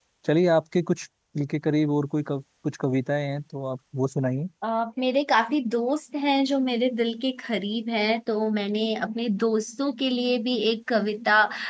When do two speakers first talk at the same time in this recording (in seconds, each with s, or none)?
none